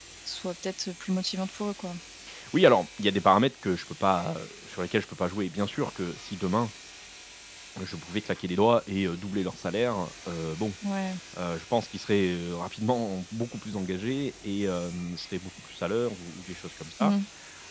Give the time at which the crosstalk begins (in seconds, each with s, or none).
none